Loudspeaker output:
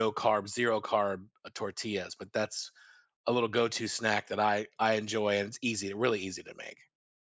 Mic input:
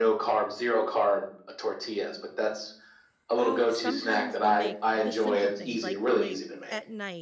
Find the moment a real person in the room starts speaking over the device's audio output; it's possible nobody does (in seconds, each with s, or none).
3.4 s